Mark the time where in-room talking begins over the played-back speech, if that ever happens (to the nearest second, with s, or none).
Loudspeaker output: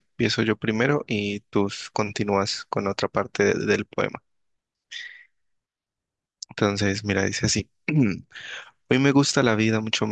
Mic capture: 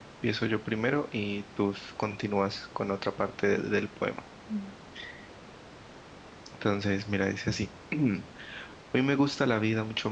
4 s